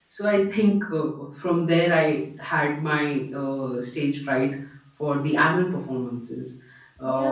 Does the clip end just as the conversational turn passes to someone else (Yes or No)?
Yes